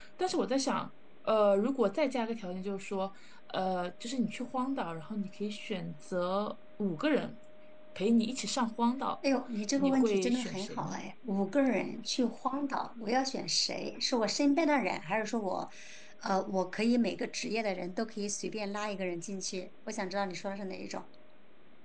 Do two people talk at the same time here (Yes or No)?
Yes